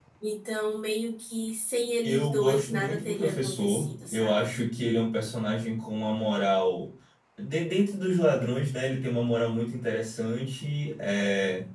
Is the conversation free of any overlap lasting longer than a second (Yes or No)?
No